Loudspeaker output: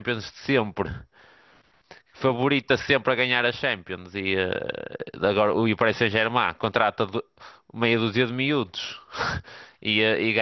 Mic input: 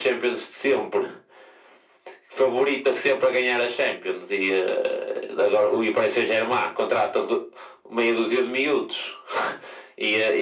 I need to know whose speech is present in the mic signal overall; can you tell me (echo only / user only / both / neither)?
echo only